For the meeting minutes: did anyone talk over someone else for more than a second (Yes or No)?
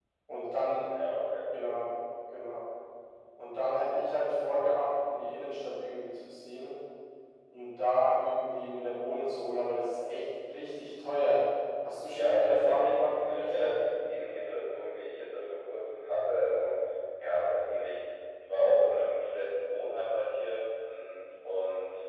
Yes